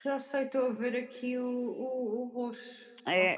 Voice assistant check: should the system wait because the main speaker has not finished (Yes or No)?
No